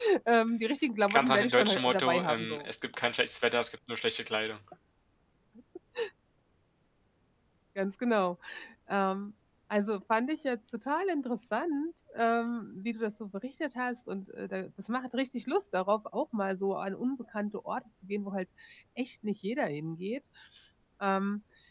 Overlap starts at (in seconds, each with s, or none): 1.1 s